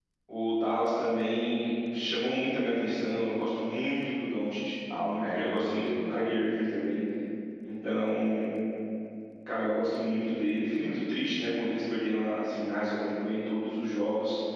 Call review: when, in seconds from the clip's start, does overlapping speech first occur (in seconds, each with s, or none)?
4.9 s